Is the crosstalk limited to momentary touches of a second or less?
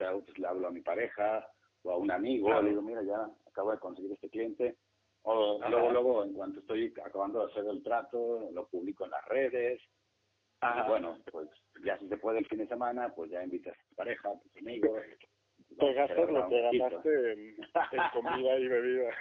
No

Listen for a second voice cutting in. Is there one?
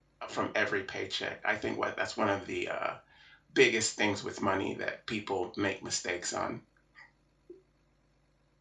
No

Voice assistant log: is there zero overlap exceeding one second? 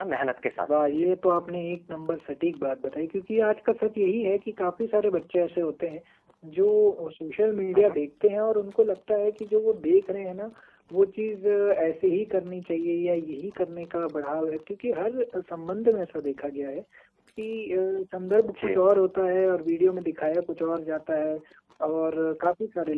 Yes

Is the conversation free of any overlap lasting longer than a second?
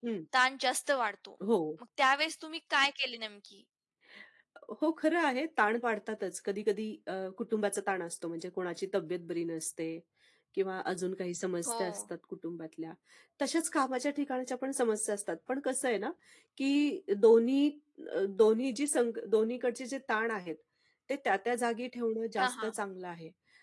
Yes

